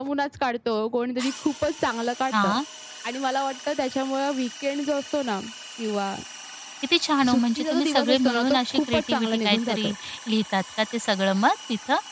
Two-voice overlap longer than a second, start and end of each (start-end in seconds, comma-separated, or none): 7.3-9.9